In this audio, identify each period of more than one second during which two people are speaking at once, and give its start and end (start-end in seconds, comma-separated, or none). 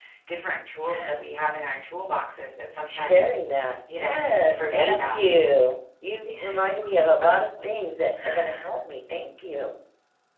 4.0-5.2